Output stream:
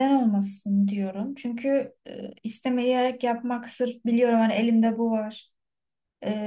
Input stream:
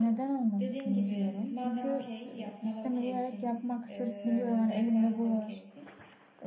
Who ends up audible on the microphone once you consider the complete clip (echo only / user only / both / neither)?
both